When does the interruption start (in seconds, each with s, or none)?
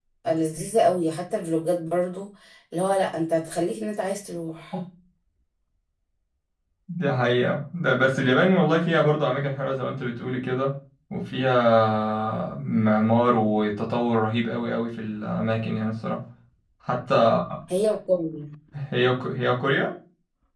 none